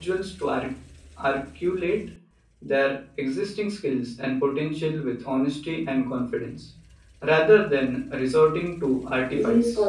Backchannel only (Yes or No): No